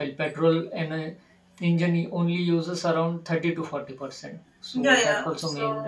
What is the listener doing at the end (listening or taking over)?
taking over